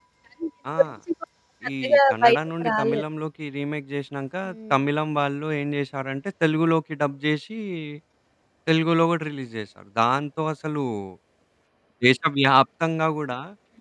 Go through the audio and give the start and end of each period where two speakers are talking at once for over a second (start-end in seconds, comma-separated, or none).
1.8-3.0